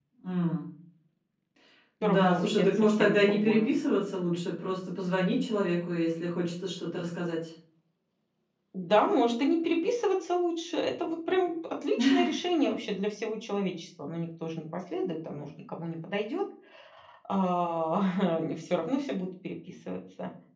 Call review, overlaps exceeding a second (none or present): present